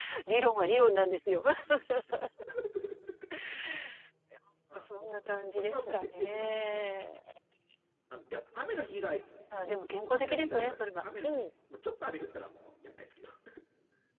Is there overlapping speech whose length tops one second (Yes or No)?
Yes